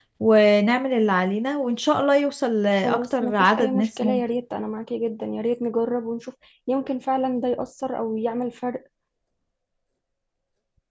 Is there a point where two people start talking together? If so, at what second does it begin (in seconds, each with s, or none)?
2.8 s